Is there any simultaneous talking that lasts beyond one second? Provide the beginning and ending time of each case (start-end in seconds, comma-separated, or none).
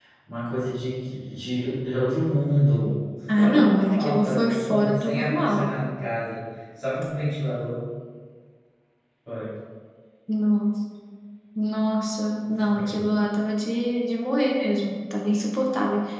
3.4-5.7